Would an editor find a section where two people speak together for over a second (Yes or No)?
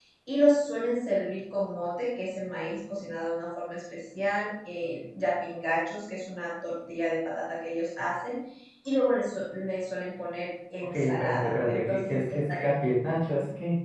Yes